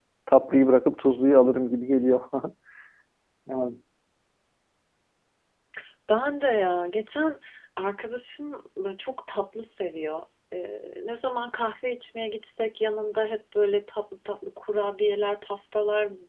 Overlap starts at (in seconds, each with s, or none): none